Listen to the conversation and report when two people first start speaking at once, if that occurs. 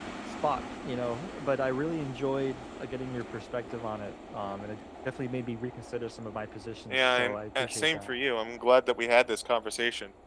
7 s

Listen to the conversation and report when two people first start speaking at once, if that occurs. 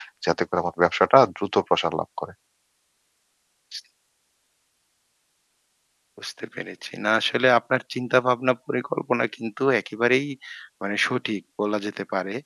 none

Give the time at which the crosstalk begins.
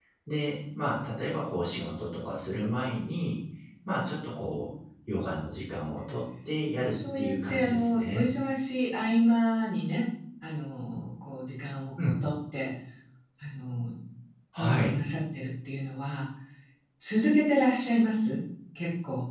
7 s

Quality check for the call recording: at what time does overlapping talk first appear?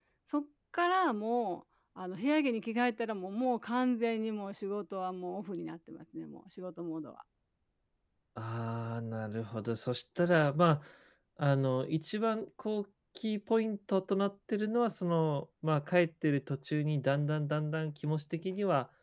none

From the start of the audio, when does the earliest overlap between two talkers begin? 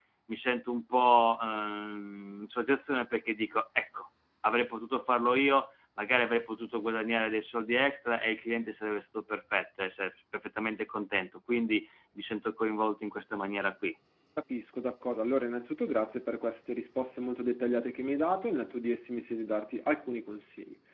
none

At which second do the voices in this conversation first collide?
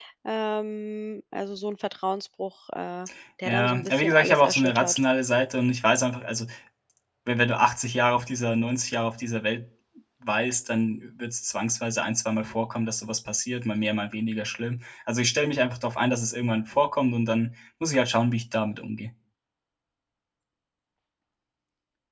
3 s

